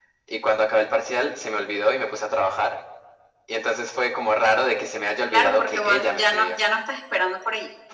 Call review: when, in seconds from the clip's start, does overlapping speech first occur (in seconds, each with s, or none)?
5.3 s